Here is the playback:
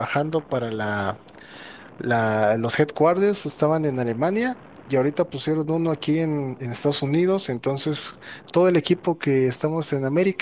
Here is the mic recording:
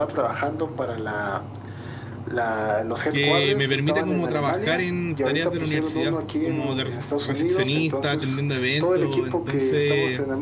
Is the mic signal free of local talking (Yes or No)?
No